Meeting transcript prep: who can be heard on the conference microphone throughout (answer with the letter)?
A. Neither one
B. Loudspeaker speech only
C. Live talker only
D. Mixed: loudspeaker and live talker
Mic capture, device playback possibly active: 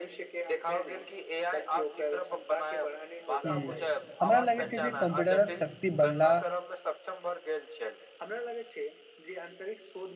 D